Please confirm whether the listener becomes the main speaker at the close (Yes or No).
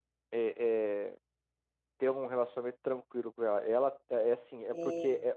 No